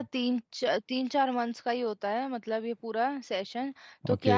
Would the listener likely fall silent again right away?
Yes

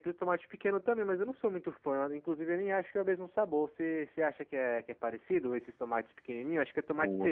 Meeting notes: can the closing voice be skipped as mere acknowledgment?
No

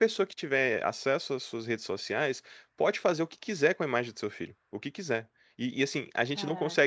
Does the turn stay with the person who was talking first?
Yes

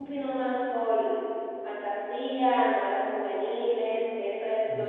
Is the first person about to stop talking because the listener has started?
No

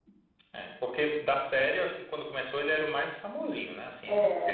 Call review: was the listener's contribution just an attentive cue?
Yes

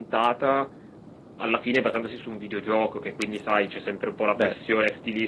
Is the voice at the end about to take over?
No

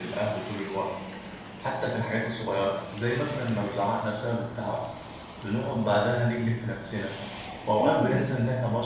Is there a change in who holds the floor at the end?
No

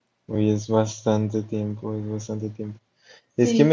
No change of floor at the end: Yes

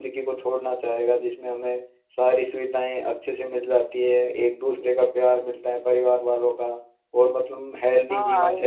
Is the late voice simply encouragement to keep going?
No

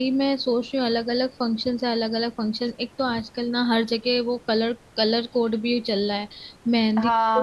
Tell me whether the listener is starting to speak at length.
Yes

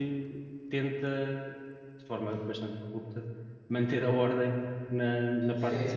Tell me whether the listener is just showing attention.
No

